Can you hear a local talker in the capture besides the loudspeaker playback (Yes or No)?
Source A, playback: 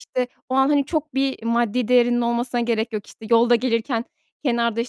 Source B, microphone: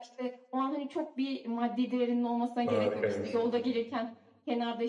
Yes